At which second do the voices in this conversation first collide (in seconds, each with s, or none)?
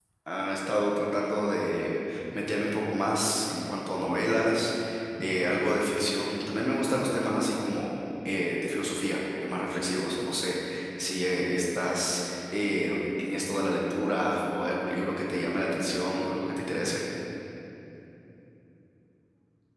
none